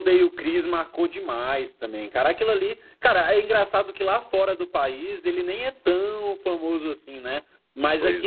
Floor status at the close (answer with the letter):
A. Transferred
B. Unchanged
B